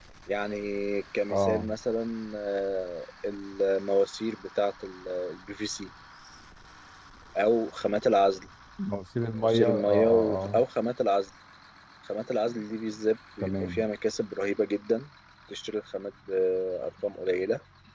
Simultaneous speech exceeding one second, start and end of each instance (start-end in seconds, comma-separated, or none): 9.4-10.6